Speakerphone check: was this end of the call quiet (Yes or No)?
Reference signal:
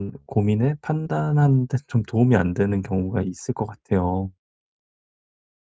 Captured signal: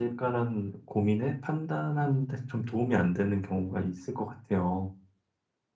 Yes